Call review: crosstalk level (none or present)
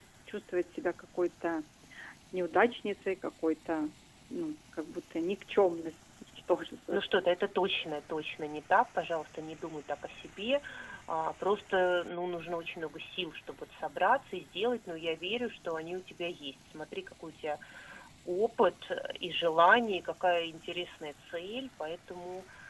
none